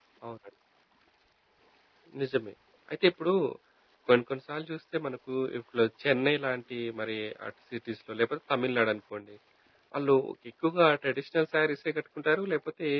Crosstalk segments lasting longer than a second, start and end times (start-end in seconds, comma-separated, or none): none